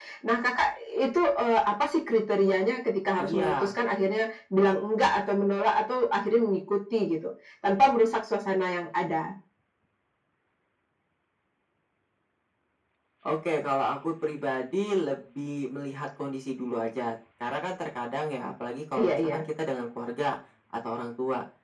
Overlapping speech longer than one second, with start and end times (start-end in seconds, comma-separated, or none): none